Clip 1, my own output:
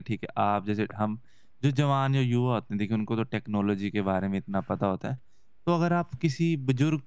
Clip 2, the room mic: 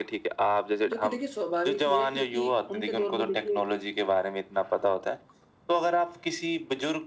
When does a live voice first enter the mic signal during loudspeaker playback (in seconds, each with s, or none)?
0.9 s